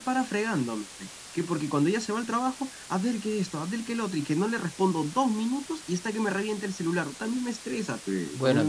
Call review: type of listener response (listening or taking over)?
taking over